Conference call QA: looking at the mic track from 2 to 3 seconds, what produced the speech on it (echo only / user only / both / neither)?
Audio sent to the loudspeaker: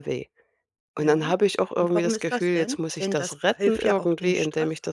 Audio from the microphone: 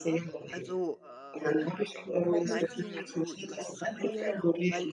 both